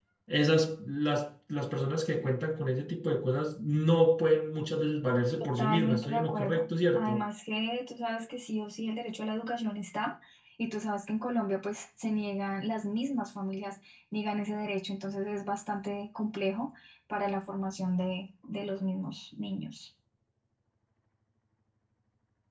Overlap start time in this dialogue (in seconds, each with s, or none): 5.4 s